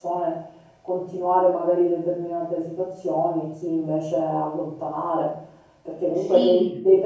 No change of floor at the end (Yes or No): Yes